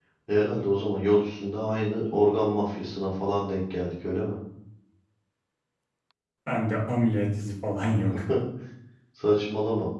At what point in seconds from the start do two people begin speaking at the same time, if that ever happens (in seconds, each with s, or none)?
none